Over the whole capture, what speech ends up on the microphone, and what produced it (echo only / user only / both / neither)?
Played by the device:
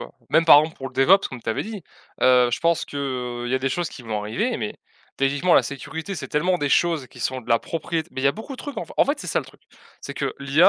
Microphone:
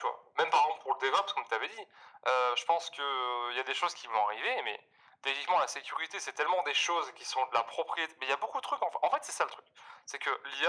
echo only